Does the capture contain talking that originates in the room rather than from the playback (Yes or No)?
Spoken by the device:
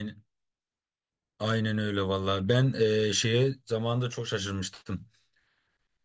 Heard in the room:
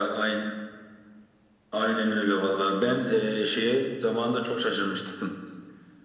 No